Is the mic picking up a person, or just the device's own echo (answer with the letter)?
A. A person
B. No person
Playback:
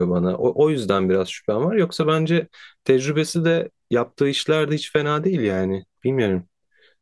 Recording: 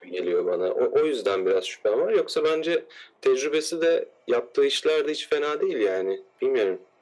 B